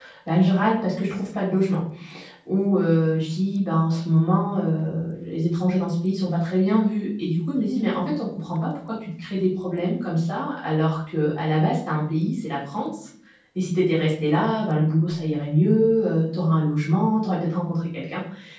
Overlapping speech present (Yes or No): No